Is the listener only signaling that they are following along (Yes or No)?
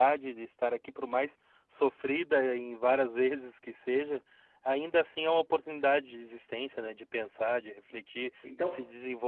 Yes